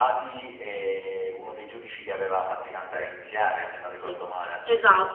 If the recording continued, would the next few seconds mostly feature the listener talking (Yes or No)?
Yes